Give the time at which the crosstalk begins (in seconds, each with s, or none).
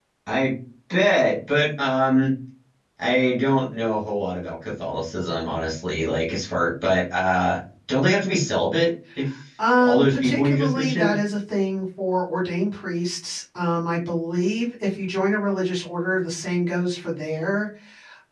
9.8 s